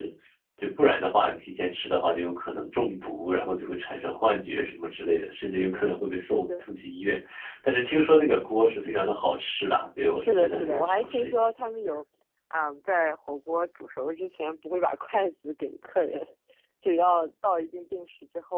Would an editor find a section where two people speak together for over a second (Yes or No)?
Yes